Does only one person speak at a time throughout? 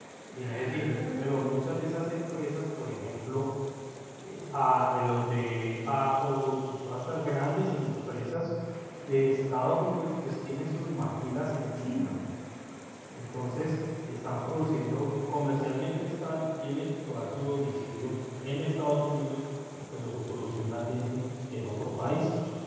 No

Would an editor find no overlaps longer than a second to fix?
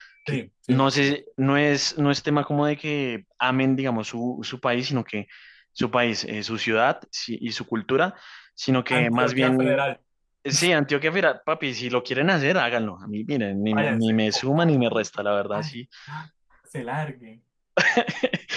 No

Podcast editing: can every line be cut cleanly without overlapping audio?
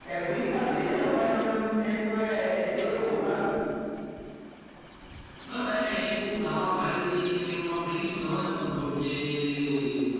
Yes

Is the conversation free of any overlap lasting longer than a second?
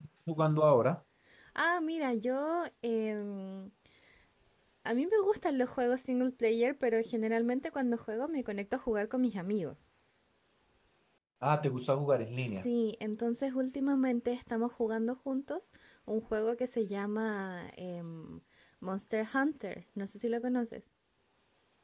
Yes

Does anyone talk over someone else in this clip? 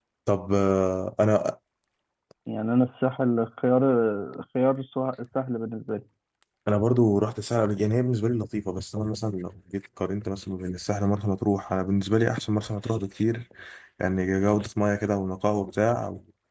No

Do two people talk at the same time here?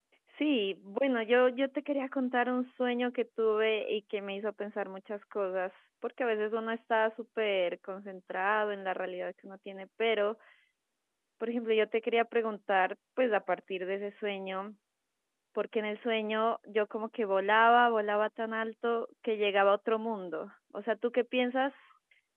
No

